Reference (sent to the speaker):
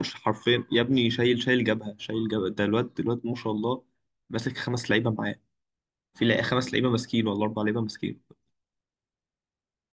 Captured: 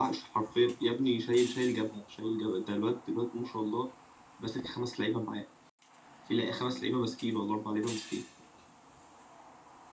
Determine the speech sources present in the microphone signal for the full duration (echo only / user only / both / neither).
echo only